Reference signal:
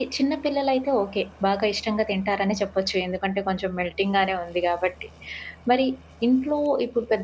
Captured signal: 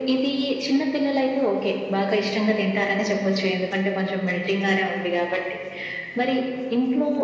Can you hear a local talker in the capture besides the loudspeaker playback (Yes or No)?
No